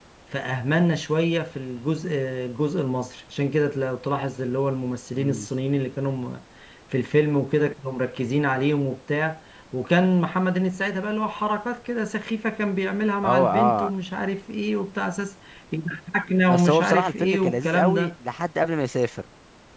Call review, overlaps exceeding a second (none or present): present